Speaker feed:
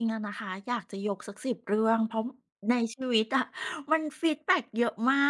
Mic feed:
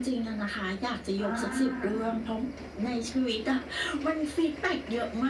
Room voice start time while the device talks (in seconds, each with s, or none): 1.2 s